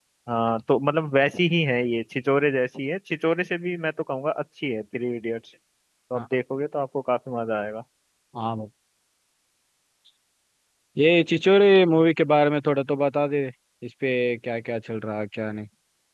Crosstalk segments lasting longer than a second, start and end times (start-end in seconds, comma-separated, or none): none